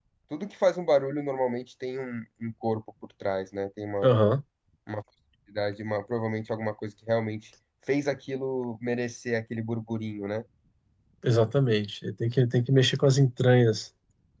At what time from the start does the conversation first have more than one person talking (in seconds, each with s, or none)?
none